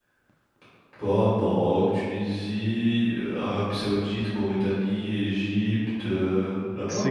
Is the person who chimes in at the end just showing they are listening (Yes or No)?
No